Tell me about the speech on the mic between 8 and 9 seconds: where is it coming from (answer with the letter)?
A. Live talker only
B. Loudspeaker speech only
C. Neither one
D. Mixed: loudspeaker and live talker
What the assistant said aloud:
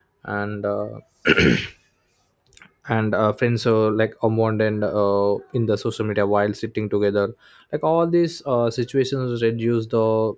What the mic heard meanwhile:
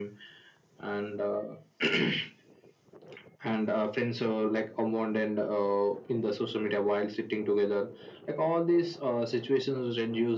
B